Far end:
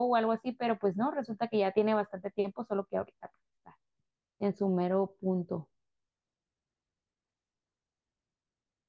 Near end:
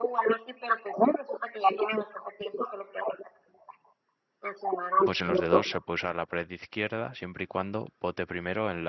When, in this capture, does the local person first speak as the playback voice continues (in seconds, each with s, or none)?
5.0 s